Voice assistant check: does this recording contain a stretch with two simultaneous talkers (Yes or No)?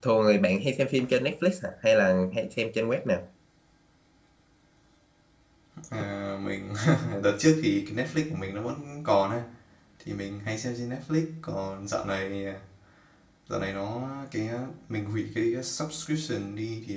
No